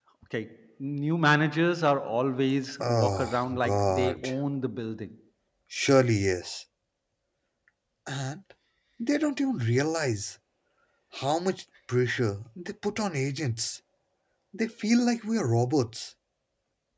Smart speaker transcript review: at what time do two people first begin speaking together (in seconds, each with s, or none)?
2.8 s